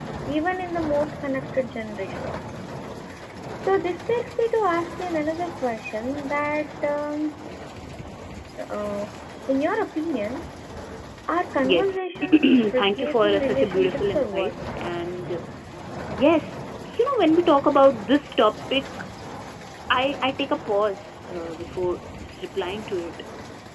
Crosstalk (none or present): present